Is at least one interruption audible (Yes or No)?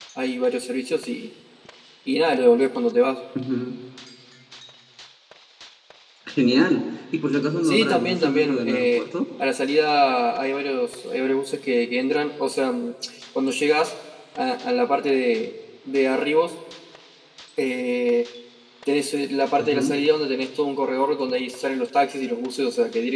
Yes